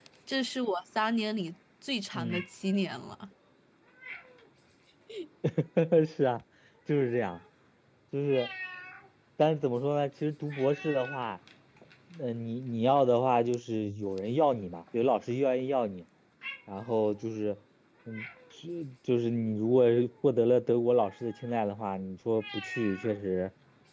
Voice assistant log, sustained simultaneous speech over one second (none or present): none